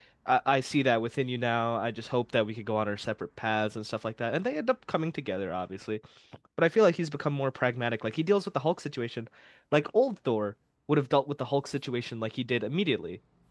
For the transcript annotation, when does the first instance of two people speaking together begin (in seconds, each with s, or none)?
none